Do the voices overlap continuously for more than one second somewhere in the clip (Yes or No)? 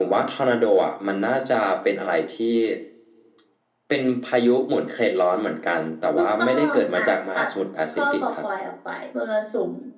Yes